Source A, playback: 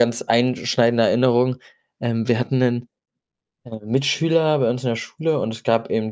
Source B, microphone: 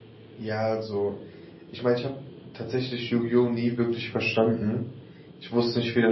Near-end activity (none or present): present